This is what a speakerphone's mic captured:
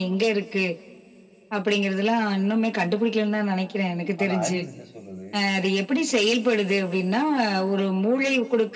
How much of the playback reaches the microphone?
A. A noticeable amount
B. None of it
A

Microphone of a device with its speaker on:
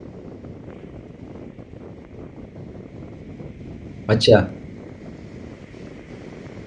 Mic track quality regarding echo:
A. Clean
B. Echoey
A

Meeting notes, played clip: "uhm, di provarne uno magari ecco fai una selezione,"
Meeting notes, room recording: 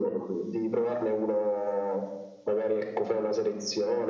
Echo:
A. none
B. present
B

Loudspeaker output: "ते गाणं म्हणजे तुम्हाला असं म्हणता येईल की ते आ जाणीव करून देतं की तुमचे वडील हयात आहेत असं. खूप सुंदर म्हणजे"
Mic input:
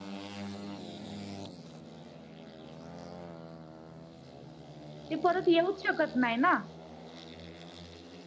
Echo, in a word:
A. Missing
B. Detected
A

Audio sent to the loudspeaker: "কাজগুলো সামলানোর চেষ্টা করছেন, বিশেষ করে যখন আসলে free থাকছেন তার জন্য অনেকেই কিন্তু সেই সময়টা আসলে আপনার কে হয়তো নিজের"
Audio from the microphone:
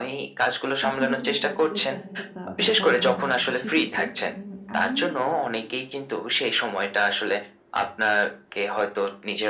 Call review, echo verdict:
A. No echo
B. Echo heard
B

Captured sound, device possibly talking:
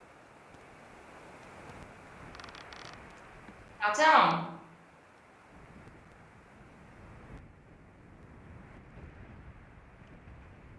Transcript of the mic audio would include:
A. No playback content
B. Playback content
A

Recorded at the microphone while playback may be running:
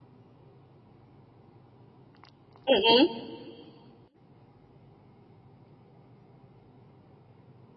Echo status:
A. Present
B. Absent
B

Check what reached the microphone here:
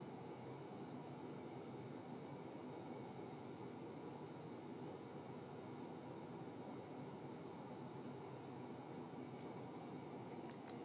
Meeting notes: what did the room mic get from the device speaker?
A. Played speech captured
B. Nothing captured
B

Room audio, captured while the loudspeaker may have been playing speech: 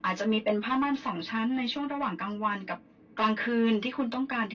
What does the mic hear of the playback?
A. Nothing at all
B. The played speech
B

